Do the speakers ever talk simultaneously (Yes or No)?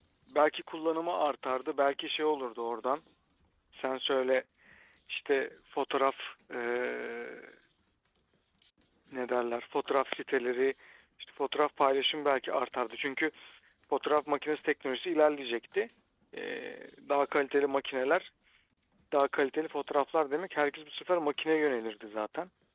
No